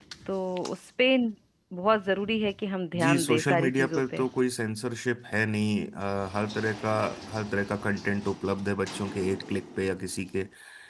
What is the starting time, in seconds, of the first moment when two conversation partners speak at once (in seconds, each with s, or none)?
2.9 s